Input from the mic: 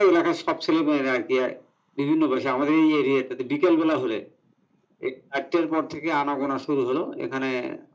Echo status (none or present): present